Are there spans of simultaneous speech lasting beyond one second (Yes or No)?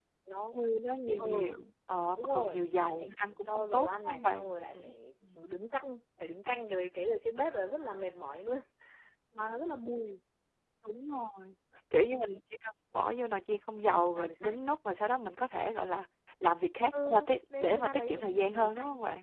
Yes